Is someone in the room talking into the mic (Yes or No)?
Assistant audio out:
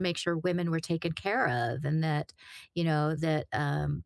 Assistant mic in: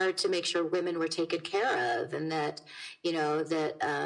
No